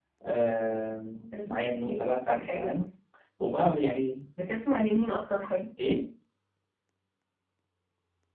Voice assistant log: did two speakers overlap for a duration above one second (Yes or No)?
Yes